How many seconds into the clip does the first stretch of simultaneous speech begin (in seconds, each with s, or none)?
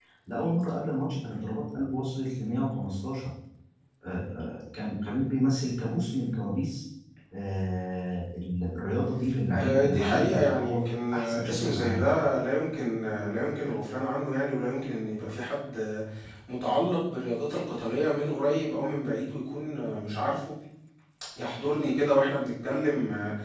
9.2 s